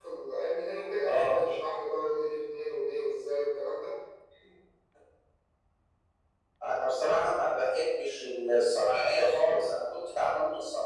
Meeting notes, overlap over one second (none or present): none